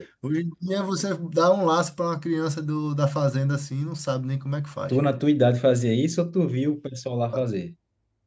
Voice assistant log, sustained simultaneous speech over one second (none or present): none